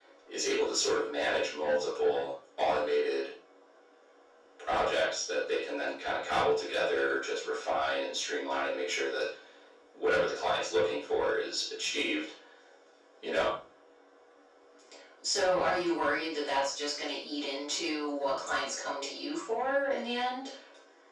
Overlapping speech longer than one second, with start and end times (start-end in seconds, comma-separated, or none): none